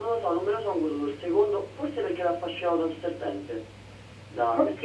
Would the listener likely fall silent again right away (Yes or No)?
Yes